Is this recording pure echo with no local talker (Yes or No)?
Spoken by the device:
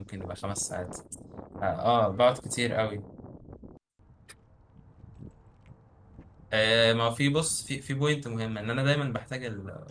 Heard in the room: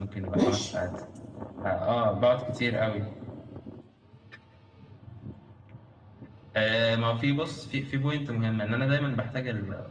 No